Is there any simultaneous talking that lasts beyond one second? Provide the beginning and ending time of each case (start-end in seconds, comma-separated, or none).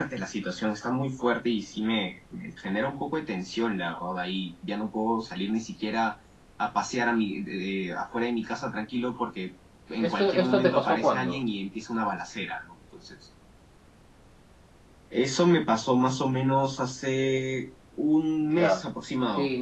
10.0-11.4